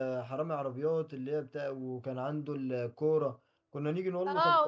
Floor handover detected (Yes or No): Yes